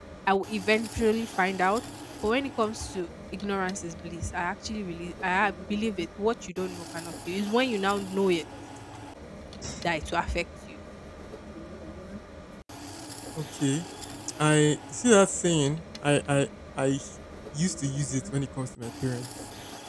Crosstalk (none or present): none